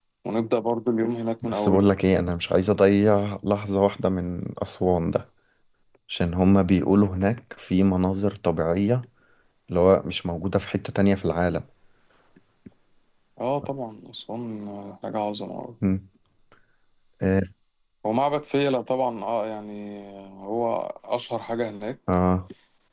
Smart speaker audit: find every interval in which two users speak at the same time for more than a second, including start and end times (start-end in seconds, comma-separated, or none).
none